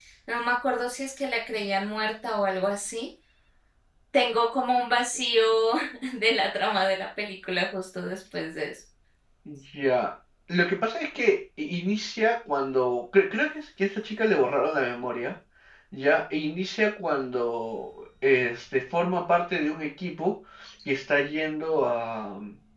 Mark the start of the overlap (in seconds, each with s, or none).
none